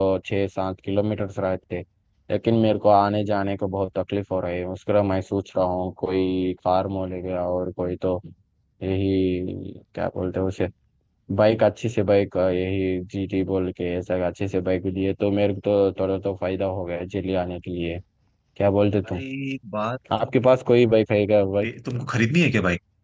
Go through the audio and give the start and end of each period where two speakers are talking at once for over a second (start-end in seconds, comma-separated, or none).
none